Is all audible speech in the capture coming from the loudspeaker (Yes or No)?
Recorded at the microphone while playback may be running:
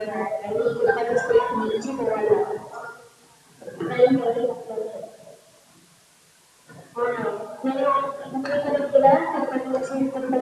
Yes